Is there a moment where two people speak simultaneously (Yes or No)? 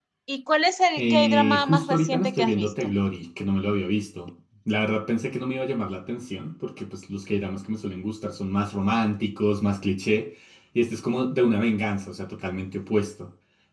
Yes